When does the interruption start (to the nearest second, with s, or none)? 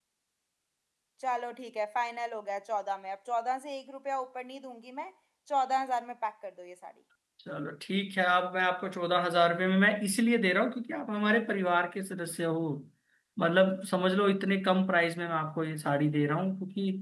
none